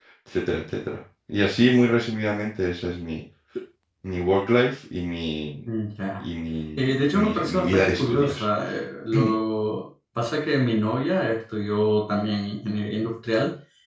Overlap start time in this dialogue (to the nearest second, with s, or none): 7 s